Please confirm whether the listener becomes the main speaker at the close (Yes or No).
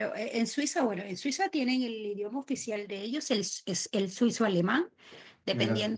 No